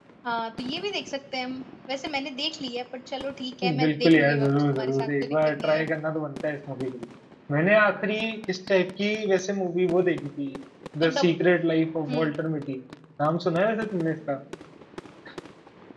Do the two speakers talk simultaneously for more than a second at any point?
Yes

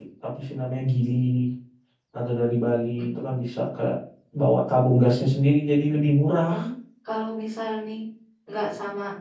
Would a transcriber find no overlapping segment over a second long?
Yes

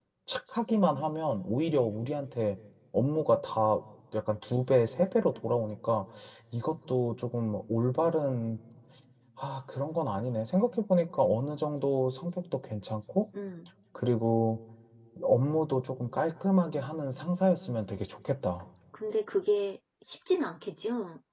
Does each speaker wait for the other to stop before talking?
Yes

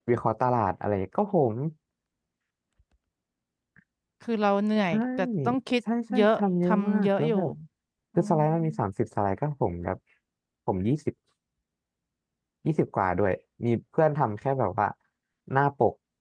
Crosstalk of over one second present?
Yes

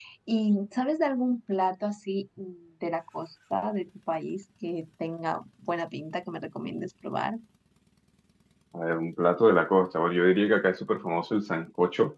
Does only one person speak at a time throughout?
Yes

